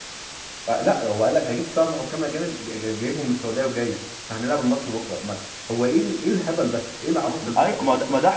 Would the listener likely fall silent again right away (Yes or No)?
No